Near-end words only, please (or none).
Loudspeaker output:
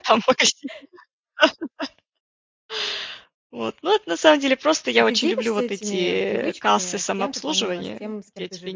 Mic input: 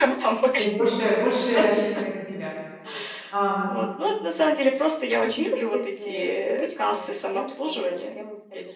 То есть больше больше рассчитывает на тебя. Ам.